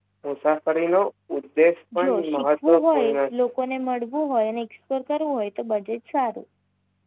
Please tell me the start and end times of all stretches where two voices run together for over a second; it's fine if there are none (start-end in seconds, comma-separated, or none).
2.0-3.3